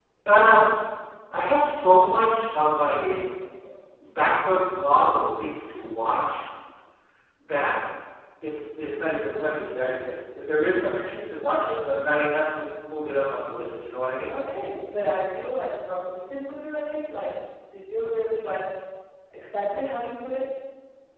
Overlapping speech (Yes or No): No